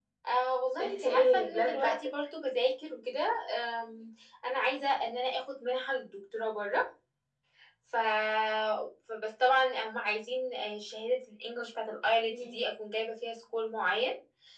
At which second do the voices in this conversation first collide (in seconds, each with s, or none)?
0.8 s